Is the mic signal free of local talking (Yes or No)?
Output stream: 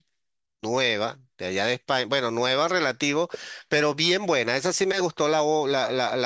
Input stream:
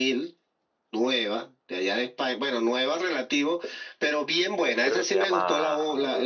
No